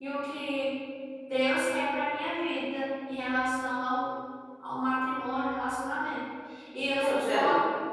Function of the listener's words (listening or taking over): listening